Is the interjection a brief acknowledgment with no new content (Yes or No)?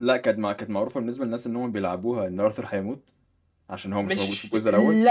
No